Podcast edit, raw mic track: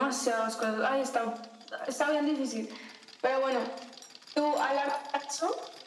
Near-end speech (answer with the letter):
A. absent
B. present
A